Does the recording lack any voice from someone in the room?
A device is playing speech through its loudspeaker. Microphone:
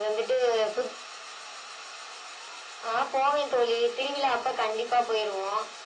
Yes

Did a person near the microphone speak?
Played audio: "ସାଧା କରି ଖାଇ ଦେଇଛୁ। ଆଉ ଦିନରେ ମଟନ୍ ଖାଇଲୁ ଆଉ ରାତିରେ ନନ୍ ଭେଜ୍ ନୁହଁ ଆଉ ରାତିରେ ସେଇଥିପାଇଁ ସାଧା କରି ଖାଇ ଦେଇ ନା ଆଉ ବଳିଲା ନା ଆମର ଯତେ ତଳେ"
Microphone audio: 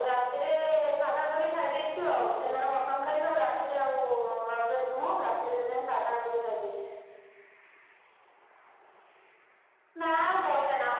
No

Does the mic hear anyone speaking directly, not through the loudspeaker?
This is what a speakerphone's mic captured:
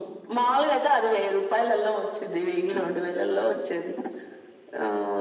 No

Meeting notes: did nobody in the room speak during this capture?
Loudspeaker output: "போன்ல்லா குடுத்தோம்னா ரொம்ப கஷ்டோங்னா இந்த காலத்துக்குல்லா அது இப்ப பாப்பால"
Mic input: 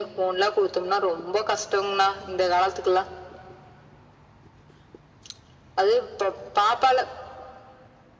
Yes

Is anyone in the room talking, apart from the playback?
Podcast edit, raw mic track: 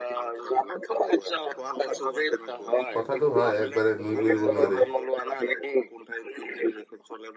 Yes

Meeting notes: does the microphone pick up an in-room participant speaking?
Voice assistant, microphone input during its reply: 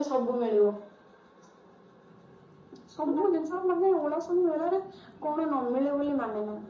No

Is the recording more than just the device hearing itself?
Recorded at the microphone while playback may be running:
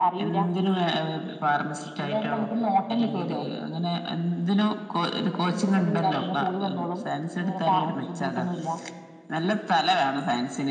No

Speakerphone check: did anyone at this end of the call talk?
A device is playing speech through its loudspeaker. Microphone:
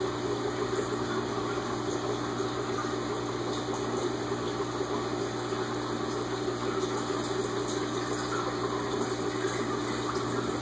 No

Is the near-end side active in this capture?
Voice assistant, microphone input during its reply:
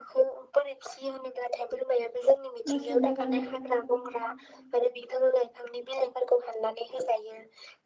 Yes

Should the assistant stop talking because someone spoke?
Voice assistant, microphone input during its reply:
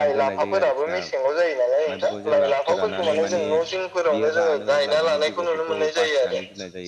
Yes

